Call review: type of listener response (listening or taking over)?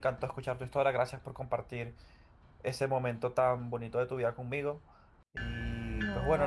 listening